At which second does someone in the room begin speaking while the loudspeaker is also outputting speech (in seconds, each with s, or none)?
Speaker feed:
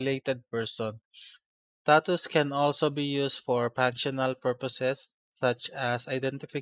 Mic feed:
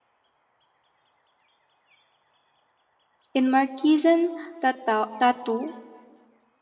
3.3 s